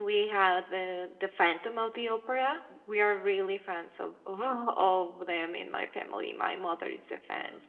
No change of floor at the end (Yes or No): Yes